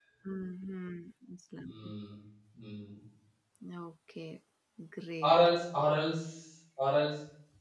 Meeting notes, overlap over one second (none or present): none